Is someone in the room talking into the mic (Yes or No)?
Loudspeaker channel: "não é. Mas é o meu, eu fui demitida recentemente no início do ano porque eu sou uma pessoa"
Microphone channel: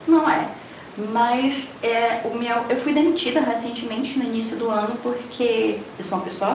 No